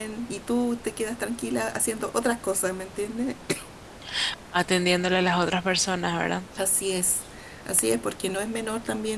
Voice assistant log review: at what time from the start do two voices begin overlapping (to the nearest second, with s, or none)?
none